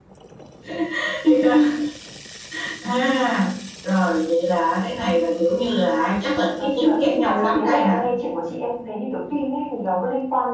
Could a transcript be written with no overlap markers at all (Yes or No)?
No